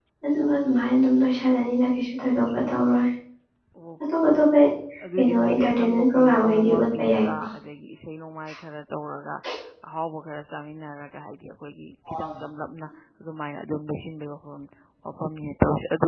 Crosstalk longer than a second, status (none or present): present